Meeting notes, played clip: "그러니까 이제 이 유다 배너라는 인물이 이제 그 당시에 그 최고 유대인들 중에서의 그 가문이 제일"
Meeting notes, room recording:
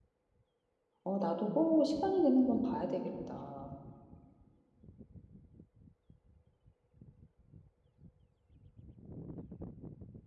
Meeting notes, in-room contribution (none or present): present